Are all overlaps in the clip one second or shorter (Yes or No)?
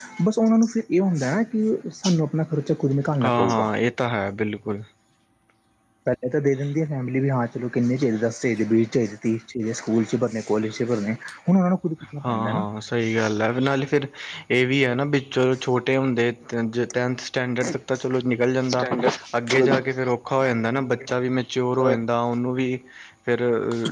Yes